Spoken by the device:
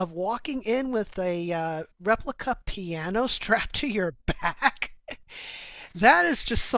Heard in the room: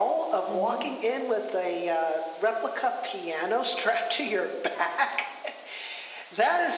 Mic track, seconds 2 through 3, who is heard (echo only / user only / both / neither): echo only